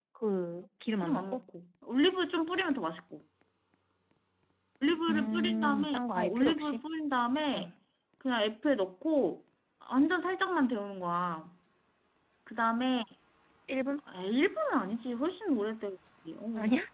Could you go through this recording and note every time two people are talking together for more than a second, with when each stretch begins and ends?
5.1-6.8

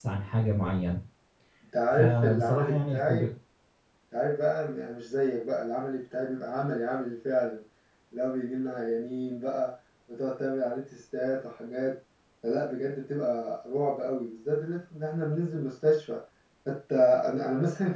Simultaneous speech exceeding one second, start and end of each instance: 1.9-3.3

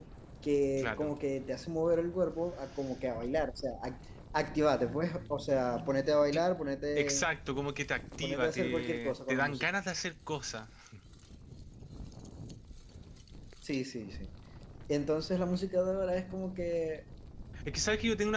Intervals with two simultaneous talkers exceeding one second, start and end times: 8.2-9.6

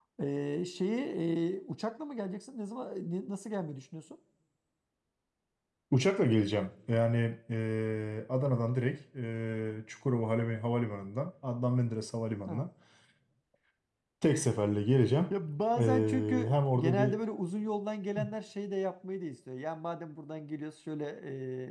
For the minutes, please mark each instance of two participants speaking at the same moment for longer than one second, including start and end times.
15.8-17.2

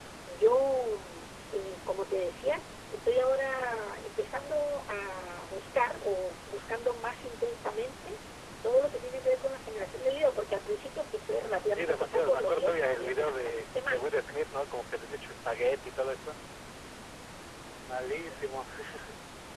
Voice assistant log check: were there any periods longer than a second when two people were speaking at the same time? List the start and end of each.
11.8-14.1

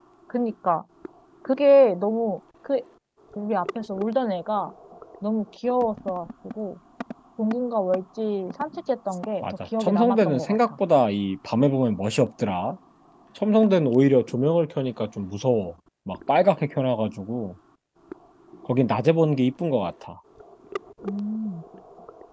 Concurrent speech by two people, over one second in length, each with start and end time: 9.4-10.7

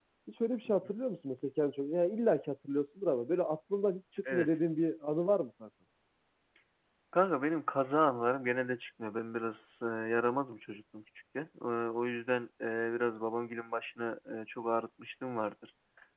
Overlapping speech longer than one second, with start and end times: none

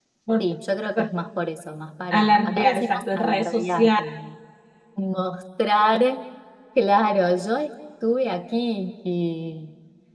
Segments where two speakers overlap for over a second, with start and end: 2.1-4.1

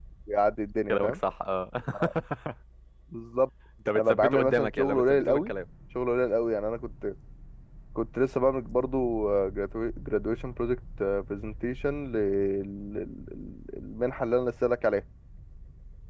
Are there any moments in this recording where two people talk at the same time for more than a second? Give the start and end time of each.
4.0-5.5

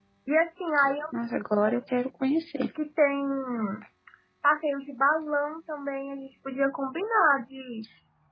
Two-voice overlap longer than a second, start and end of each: none

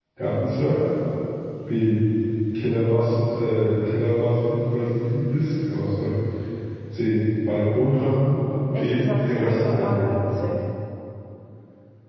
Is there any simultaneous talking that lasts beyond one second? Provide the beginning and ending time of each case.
8.8-10.1

